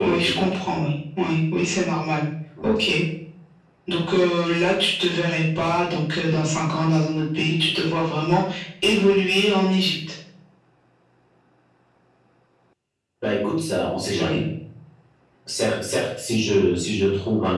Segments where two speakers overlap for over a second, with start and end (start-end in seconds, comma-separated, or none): none